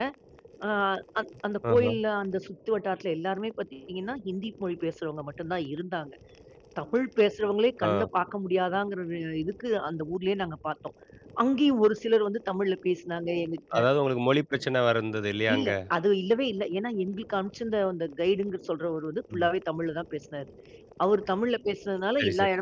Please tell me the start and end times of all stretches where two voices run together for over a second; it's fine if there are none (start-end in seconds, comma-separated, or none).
none